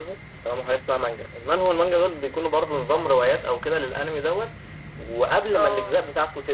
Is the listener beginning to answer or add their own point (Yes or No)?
No